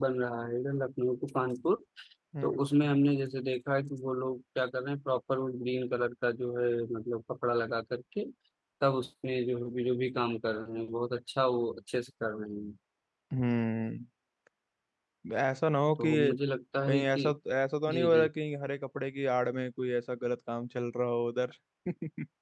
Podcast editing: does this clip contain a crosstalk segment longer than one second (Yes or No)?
No